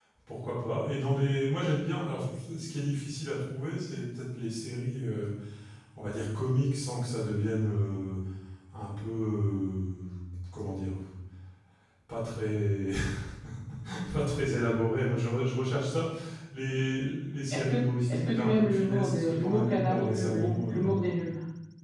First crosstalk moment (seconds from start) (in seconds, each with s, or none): 17.5 s